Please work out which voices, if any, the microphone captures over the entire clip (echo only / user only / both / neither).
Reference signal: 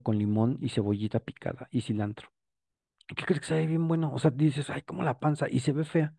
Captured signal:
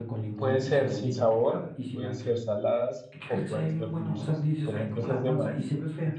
both